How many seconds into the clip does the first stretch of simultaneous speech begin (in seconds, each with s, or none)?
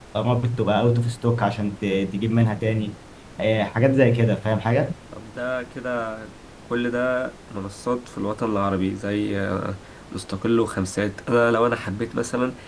none